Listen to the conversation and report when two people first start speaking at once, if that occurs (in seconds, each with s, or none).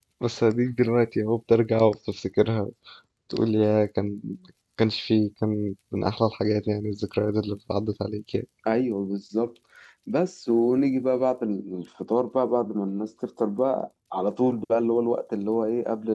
none